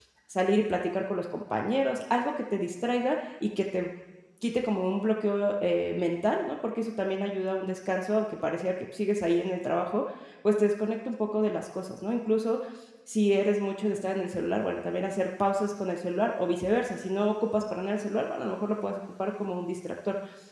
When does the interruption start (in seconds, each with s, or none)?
none